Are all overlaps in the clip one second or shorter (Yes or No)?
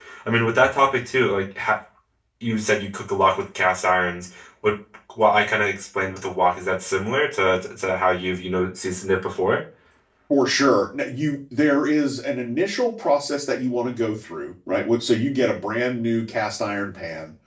Yes